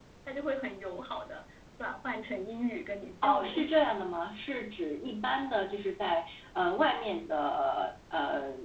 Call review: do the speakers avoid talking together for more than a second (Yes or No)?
Yes